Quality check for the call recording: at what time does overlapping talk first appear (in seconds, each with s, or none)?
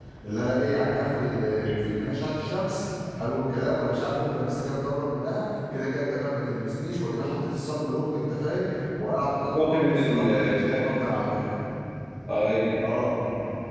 9.5 s